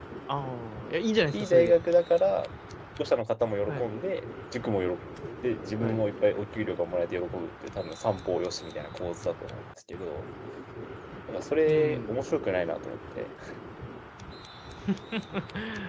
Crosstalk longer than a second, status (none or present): none